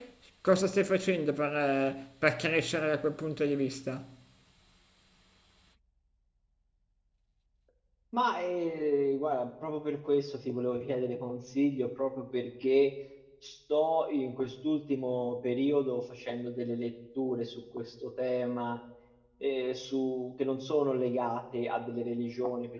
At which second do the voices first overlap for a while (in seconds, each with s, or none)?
none